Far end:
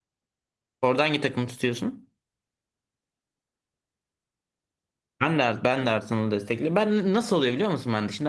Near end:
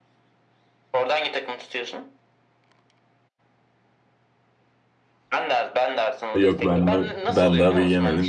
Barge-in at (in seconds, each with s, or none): 6.3 s